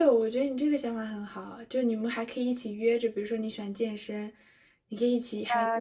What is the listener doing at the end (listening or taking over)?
taking over